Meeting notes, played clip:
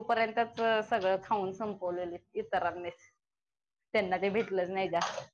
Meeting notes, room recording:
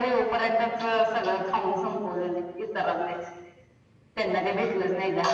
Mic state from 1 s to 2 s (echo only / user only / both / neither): echo only